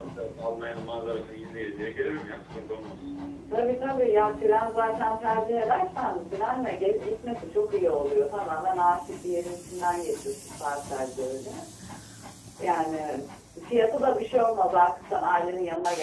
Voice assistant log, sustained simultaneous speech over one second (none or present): none